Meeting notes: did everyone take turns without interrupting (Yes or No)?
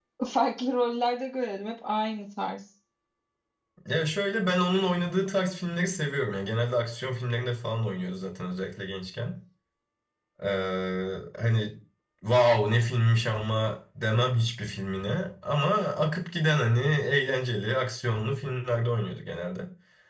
Yes